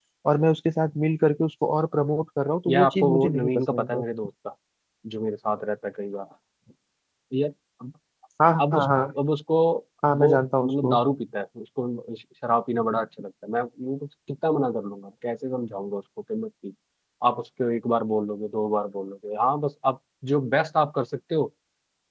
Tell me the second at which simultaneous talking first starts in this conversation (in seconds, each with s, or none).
2.7 s